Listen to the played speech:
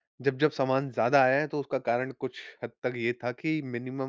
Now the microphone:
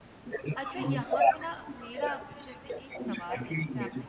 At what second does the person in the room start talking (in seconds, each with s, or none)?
0.6 s